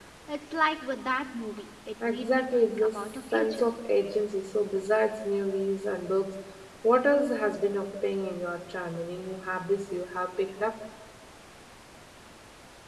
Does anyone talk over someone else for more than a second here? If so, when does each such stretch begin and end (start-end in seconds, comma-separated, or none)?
2.0-3.7